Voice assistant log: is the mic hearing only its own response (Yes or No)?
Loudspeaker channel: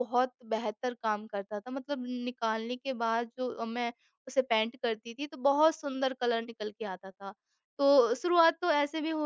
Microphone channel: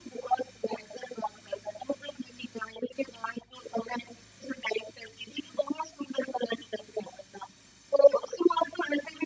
Yes